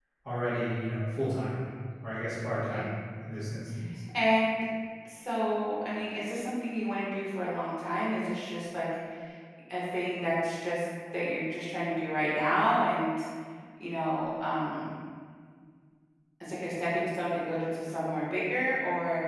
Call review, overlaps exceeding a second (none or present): none